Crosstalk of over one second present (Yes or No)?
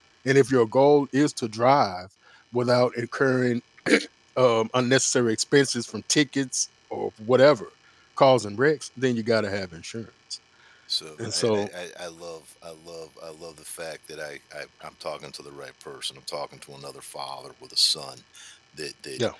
No